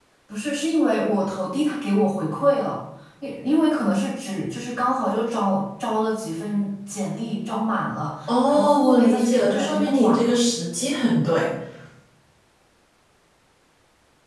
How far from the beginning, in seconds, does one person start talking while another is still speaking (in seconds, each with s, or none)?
8.3 s